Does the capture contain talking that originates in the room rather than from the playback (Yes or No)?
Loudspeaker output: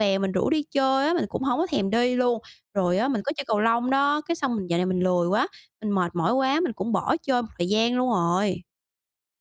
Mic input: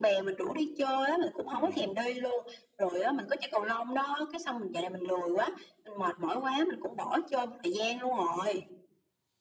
Yes